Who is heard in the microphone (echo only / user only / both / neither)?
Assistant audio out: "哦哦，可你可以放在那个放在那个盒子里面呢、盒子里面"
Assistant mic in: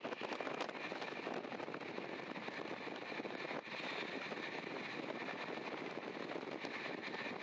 neither